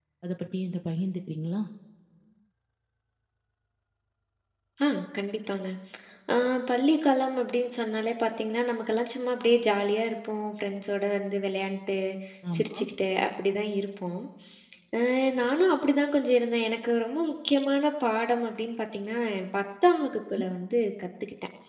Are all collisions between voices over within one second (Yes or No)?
Yes